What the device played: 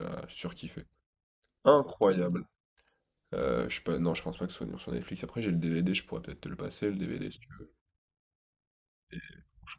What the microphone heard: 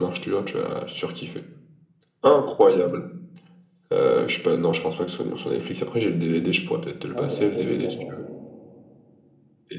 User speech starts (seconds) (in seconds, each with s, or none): 7.1 s